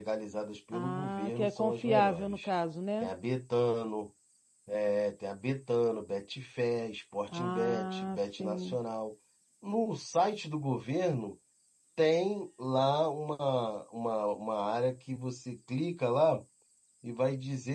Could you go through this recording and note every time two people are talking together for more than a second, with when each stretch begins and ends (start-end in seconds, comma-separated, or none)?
0.7-2.5, 7.3-8.8